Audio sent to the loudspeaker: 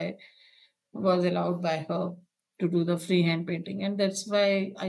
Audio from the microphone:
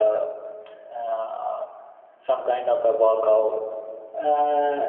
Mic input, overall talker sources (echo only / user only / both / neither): user only